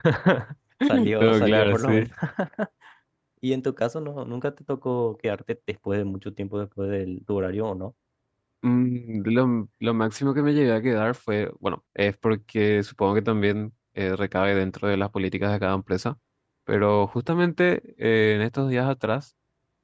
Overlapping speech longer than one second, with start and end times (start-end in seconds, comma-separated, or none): 0.9-2.1